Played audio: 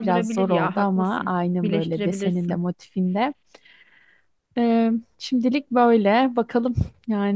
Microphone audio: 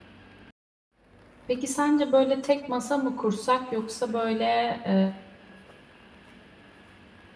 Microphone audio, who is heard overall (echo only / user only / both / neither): user only